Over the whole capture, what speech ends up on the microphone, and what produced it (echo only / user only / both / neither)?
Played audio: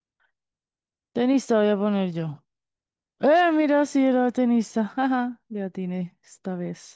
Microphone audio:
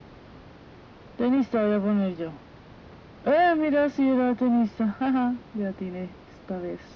echo only